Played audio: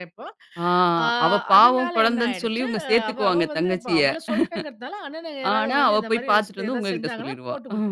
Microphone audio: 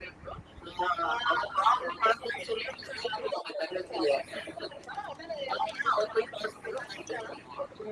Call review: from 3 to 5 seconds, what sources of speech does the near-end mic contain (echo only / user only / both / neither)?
echo only